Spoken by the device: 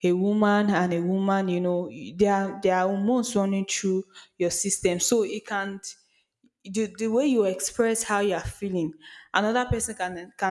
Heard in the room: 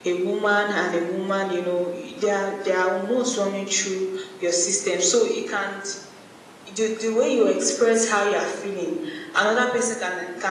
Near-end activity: none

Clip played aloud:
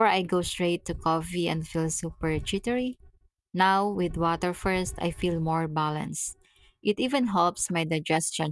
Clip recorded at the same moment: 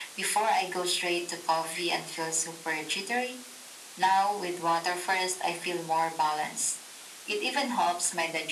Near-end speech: none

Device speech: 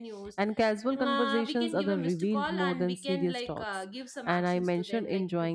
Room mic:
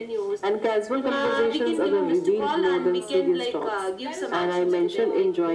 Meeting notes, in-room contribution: present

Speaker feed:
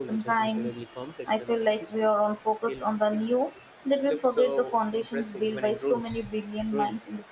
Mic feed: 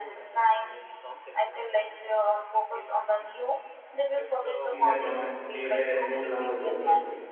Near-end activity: present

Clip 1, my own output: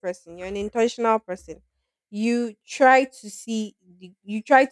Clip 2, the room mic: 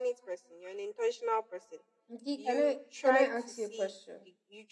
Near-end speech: present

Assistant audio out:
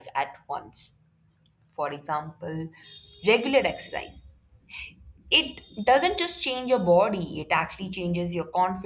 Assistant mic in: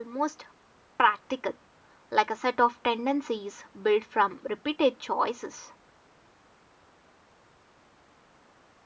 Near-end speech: present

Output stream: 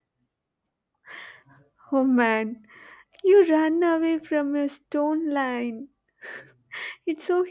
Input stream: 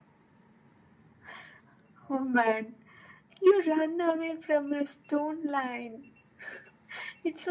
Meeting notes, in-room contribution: none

